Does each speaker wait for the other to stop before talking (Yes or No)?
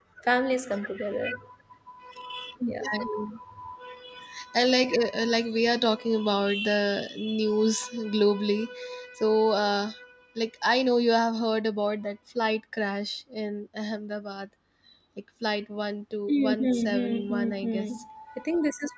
No